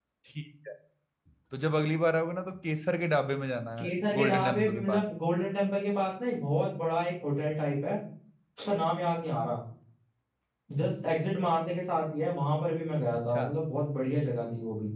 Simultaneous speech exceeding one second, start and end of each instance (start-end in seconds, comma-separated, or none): 3.8-5.0